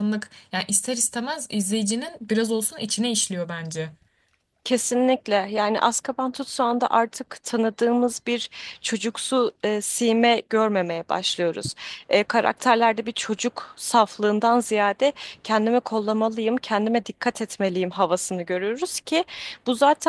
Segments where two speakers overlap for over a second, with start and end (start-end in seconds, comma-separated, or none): none